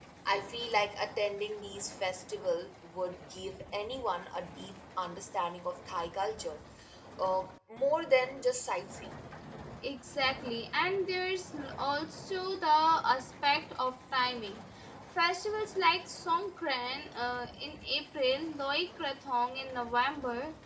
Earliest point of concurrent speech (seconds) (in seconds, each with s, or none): none